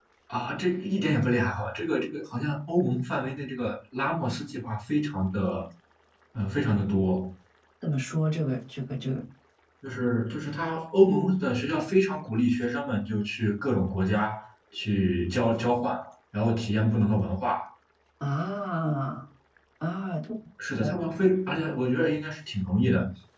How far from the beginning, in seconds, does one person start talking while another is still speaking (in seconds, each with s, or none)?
none